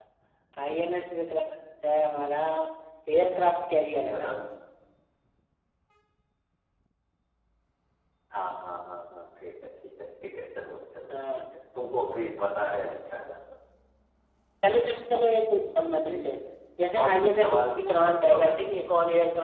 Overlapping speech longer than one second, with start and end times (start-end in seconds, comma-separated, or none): 17.0-18.6